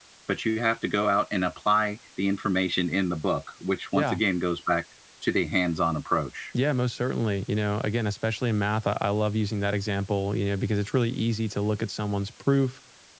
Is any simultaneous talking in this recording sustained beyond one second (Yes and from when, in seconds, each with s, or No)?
No